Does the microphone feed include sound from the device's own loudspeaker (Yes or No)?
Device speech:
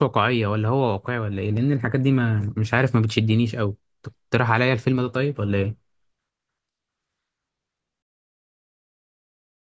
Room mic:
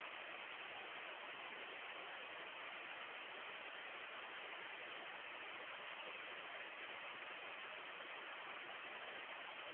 No